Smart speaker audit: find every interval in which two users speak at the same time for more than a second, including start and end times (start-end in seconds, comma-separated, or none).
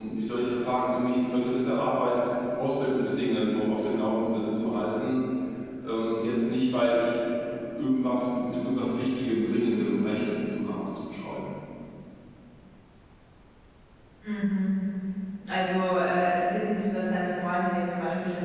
none